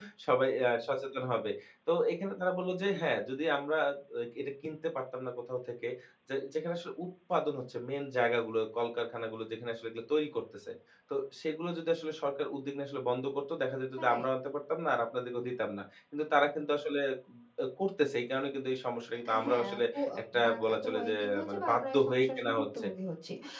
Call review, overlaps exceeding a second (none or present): present